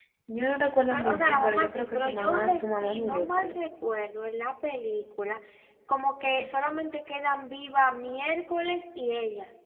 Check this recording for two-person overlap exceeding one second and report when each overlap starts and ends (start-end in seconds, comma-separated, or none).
0.9-3.6